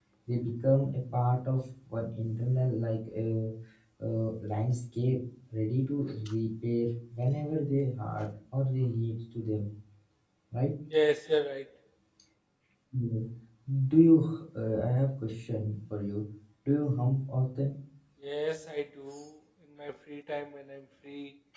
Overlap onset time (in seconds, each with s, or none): none